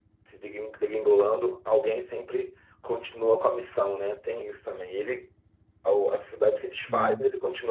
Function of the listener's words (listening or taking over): listening